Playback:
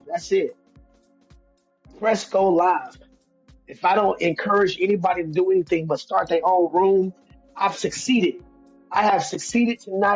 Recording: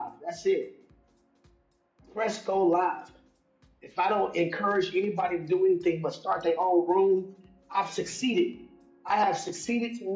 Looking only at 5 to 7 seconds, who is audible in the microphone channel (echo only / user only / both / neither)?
echo only